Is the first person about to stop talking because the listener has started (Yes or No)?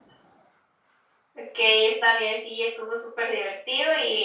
No